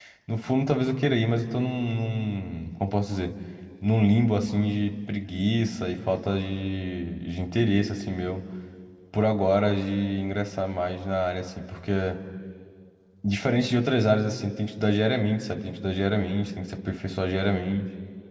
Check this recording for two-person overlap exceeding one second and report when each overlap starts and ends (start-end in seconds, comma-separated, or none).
none